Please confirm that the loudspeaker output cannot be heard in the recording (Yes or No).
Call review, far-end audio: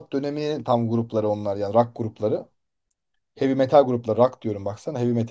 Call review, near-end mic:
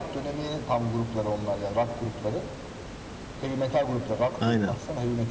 No